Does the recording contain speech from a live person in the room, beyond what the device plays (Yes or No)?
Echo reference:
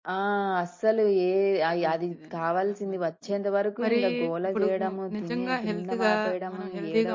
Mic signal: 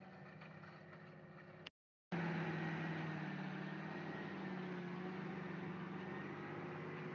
No